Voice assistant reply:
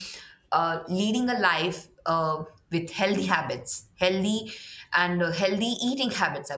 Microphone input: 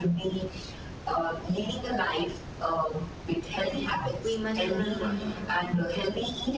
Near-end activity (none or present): present